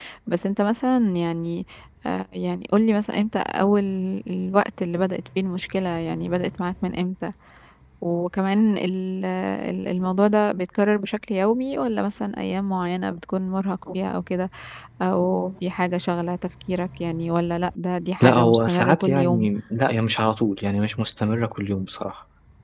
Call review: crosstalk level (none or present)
present